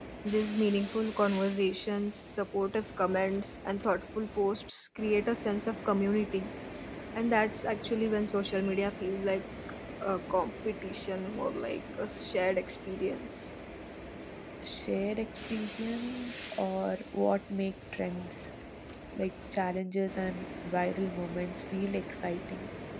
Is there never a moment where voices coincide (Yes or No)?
Yes